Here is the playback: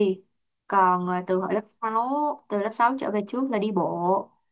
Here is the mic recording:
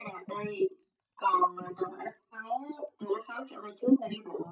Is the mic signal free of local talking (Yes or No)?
Yes